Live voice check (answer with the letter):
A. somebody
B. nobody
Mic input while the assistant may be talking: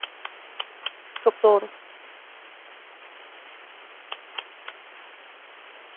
A